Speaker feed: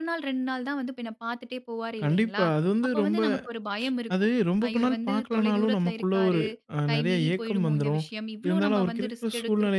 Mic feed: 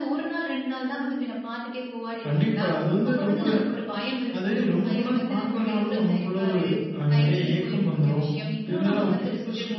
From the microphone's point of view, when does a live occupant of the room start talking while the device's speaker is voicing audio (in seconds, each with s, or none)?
none